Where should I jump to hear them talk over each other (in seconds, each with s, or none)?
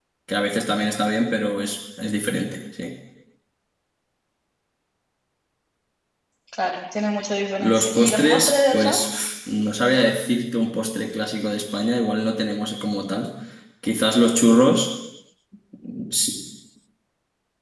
7.6 s